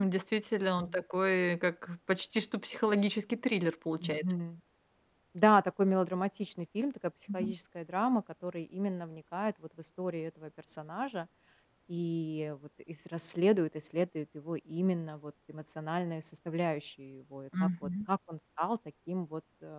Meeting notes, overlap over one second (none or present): none